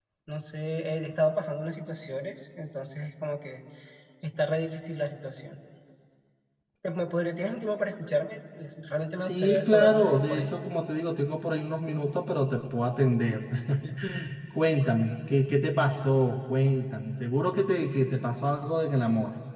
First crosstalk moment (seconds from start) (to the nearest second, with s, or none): 9 s